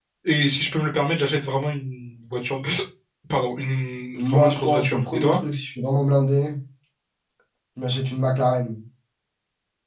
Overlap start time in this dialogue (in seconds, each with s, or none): 4.1 s